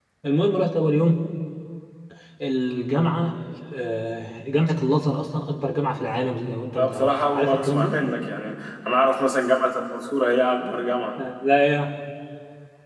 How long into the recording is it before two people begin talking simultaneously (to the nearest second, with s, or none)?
7 s